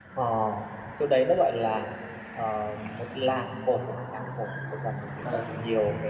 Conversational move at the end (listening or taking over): listening